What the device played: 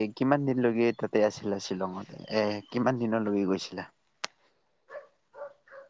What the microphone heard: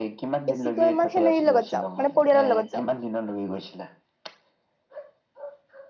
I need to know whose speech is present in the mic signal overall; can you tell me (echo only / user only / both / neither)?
both